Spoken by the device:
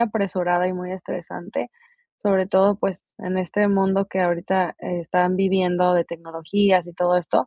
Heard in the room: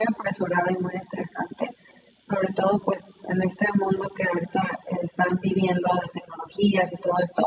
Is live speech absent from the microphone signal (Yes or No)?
Yes